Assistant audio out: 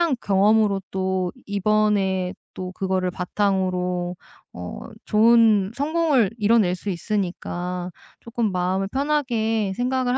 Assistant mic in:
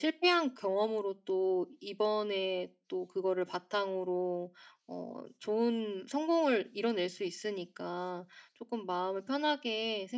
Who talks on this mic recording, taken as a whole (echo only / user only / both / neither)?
echo only